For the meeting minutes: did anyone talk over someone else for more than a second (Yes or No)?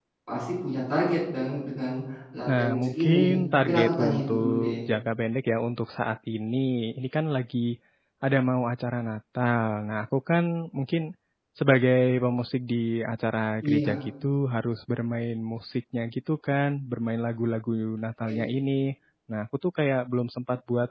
Yes